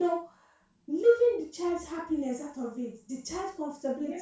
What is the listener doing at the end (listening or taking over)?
listening